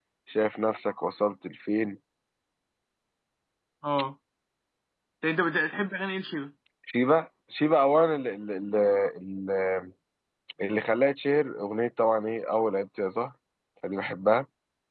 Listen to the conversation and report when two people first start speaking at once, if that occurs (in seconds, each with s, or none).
none